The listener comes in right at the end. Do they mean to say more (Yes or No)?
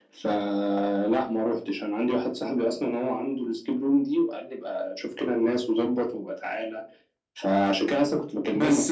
Yes